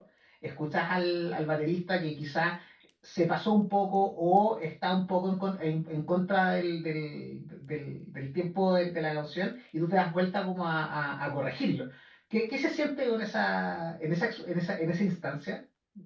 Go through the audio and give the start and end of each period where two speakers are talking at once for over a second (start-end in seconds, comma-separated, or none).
none